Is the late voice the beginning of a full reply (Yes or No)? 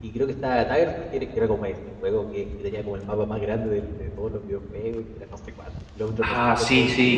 Yes